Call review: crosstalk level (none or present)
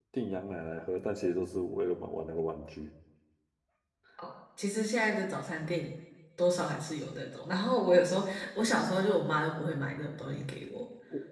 none